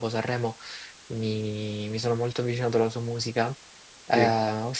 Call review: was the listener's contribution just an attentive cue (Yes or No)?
Yes